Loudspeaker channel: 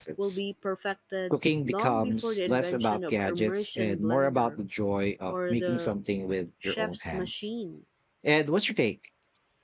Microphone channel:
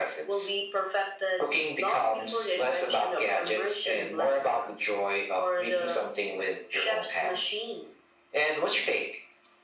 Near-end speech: none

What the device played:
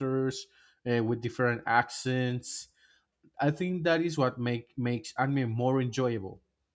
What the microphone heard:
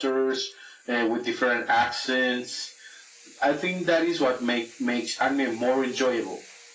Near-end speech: none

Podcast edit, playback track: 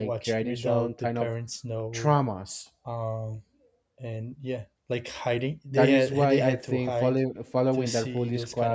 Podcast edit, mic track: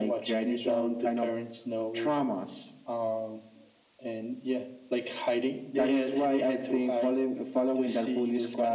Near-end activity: none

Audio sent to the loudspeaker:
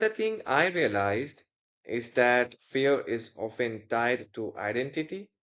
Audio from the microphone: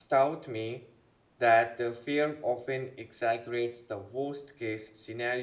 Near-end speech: present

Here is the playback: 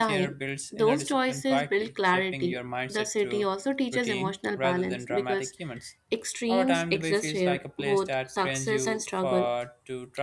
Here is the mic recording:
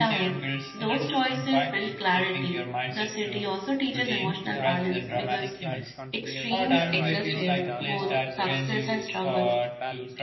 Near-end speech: present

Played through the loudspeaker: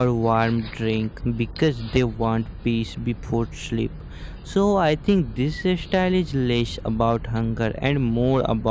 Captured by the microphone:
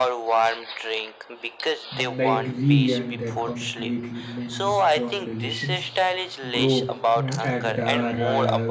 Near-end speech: present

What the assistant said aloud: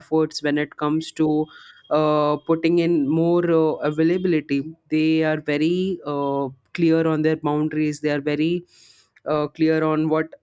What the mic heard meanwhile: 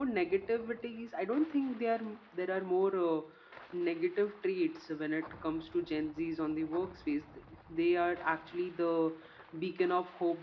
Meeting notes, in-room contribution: present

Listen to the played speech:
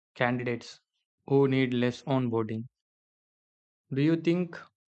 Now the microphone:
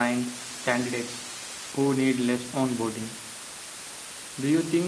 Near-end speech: none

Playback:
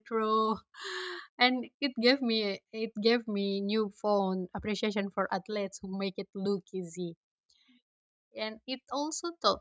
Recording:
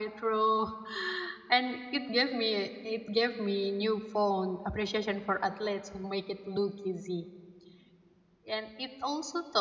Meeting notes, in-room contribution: none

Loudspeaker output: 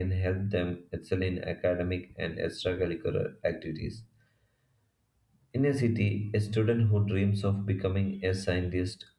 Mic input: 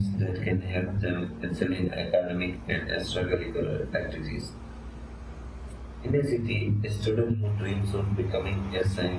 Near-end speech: none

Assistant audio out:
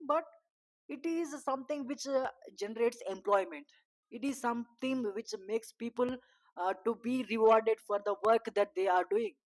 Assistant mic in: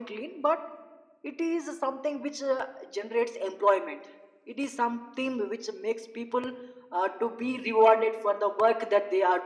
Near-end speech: none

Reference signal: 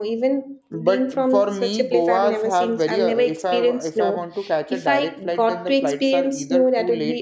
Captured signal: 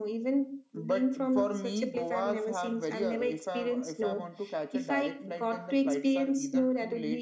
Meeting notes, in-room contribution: none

